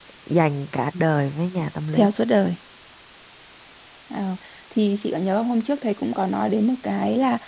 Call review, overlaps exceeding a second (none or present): none